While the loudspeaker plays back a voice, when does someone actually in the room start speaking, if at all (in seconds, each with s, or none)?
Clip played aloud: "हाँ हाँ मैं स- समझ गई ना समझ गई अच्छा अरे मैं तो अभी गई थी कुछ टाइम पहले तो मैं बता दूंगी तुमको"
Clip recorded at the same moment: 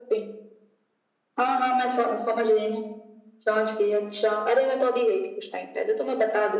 none